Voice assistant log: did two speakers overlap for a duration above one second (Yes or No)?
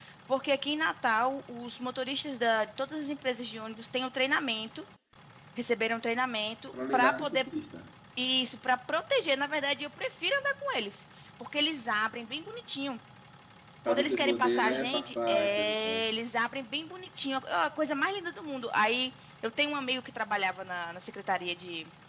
Yes